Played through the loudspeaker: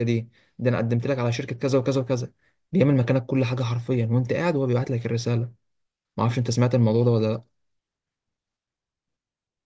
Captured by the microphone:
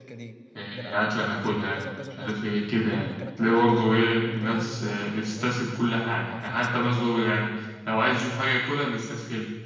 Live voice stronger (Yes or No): Yes